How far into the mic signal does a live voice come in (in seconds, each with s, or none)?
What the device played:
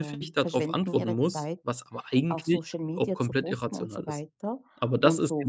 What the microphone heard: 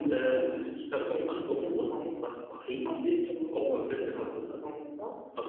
3.5 s